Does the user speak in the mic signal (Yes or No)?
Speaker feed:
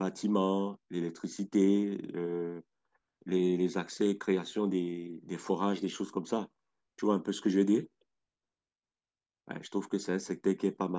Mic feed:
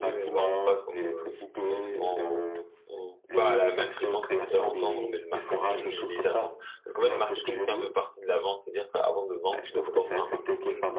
Yes